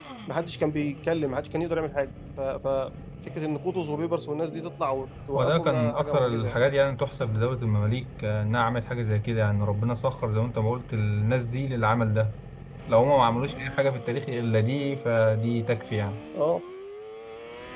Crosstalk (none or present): present